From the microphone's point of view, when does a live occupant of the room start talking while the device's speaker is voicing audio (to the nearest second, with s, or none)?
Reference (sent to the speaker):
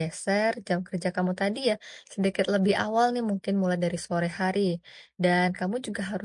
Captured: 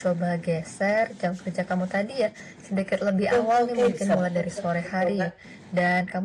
3 s